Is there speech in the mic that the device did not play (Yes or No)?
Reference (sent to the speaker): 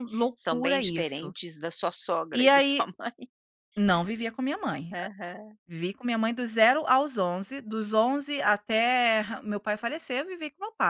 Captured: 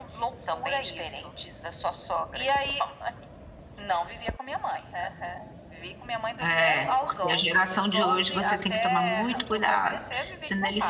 Yes